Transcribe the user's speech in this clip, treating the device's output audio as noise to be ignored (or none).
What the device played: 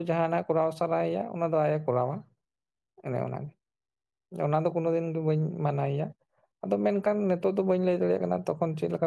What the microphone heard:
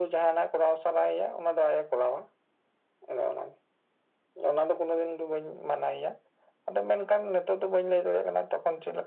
none